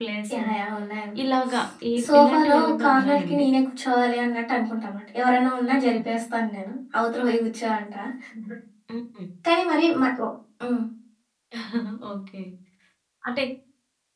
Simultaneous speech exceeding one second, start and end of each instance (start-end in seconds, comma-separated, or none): 2.0-3.4